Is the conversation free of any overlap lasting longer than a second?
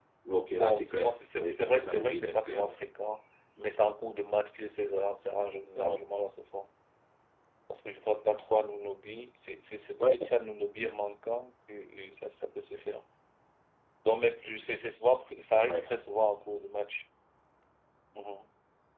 No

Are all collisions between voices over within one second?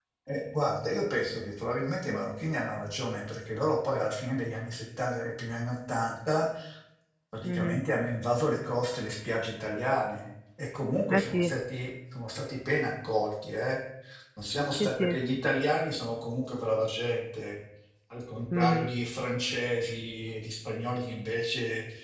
Yes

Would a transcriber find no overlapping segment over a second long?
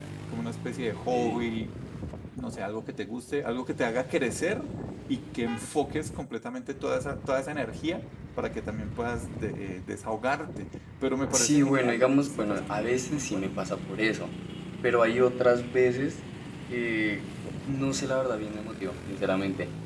No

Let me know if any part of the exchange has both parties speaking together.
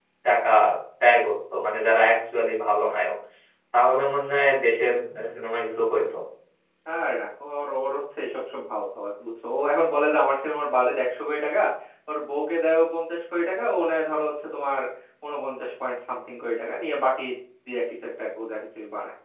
No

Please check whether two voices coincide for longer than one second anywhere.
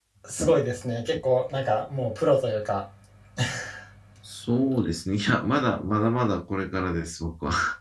No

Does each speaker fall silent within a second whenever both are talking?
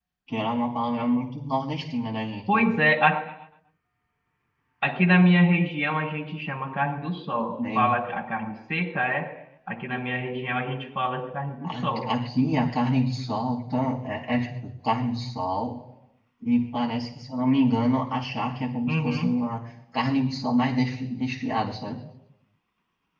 Yes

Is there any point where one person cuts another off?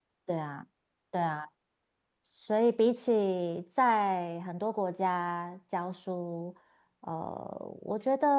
No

